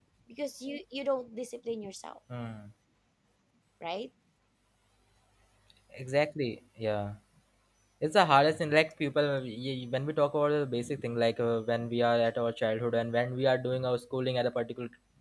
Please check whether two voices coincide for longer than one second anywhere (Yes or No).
No